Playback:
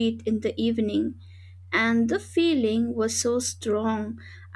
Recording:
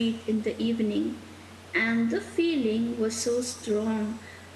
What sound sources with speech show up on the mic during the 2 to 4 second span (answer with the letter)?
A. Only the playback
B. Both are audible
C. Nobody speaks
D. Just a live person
A